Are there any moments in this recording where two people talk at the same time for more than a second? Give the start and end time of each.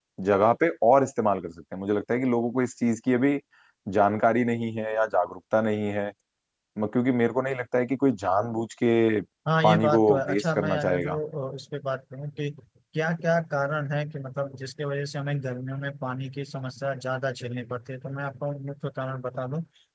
9.6-11.2

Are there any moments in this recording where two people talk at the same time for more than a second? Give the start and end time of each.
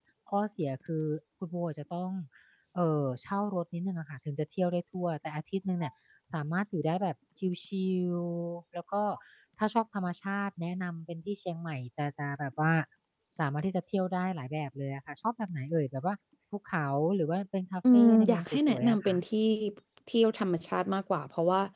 17.9-19.1

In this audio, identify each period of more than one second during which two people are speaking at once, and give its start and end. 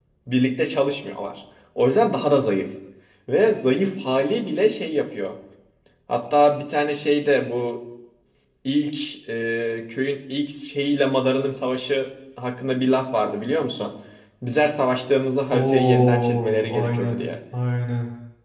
15.5-17.3

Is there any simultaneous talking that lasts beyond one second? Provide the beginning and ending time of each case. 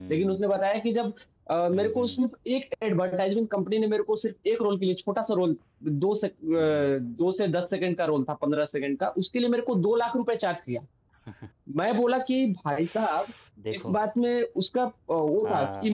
none

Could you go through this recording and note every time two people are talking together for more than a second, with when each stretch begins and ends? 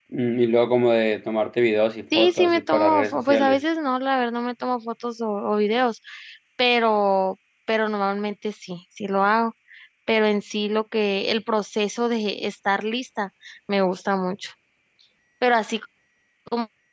2.1-3.6

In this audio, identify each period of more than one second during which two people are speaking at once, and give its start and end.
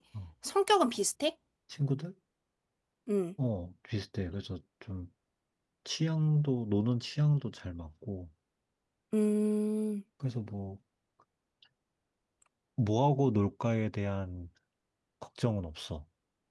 none

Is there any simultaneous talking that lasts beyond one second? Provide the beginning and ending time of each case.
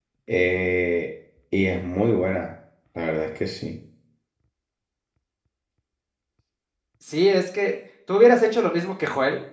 none

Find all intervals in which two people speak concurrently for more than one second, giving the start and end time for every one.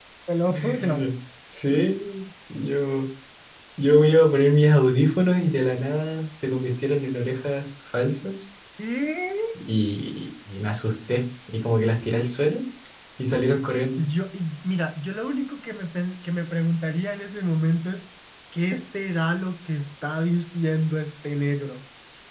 none

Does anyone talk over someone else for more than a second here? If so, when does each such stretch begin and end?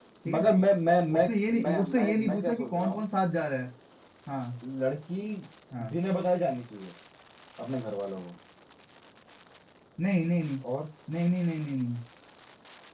1.6-3.0

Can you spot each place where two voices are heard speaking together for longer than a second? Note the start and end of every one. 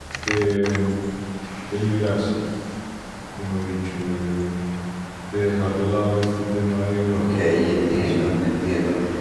7.1-8.3

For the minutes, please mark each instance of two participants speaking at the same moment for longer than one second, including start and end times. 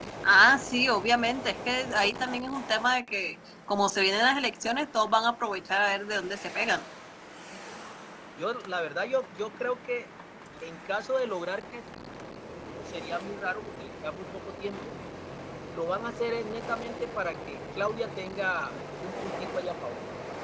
none

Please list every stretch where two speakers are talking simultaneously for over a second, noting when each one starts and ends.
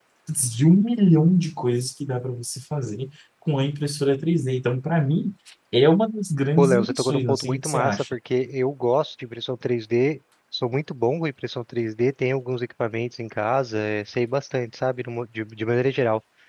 6.6-8.1

